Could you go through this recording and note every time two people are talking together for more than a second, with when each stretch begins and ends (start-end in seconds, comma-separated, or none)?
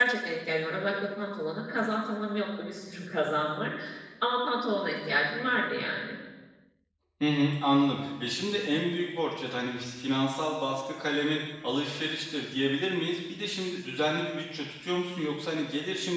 none